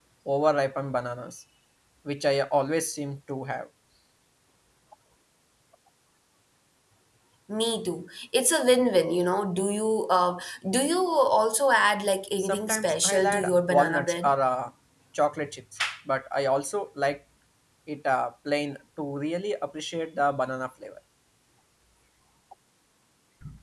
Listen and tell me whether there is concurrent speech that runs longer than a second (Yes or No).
Yes